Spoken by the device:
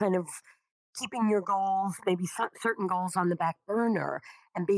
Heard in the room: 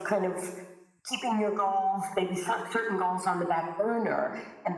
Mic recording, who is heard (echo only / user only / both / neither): echo only